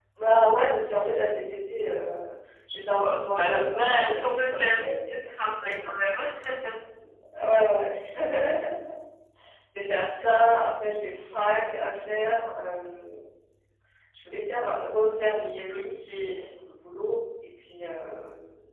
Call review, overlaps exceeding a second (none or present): present